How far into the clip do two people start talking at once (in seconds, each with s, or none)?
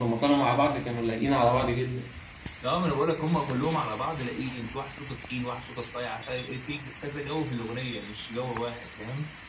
none